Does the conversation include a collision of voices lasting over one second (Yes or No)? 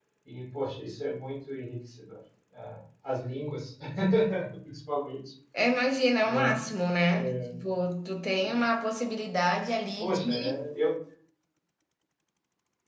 No